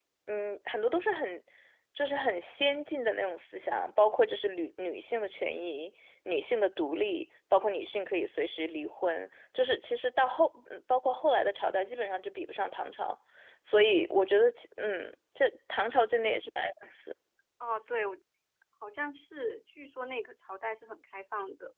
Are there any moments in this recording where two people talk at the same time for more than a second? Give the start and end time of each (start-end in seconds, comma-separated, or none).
none